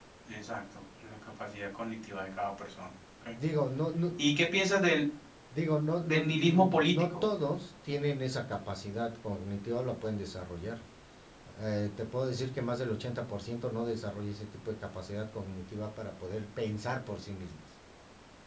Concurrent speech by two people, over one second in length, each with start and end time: 6.0-7.2

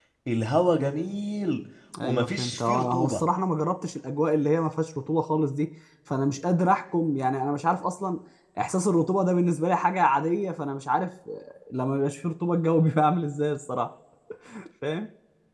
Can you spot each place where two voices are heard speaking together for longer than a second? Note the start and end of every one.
2.0-3.2

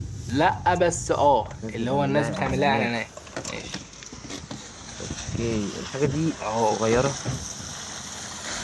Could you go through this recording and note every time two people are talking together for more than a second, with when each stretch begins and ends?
1.7-2.9

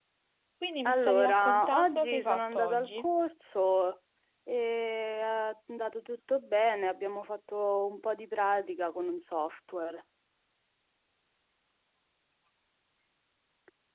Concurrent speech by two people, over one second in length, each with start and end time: 0.8-3.1

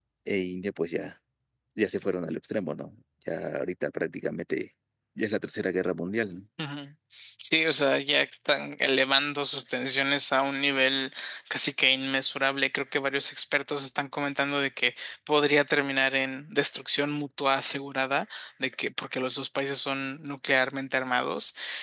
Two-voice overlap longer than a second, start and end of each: none

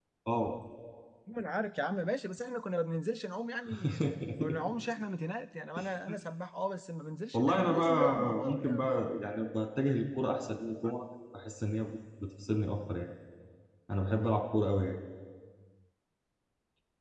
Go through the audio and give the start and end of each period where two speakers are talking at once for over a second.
7.3-8.8

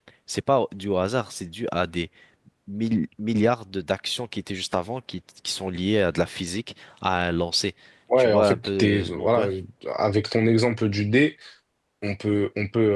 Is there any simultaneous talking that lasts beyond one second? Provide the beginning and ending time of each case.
8.2-9.5

